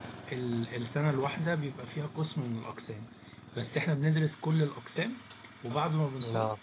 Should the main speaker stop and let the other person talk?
No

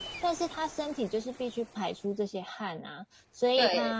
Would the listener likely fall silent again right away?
Yes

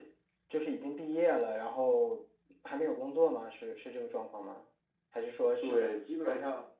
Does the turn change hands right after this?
Yes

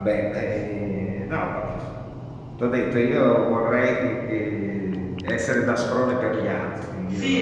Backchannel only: No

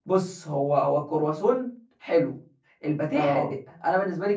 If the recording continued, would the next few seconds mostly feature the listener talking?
No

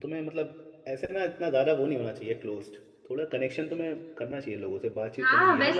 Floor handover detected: Yes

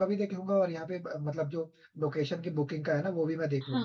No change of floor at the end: No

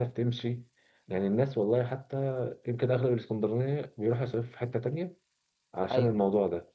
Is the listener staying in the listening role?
Yes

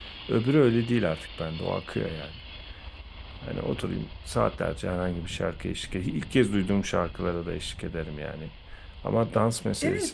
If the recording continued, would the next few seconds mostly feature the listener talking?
Yes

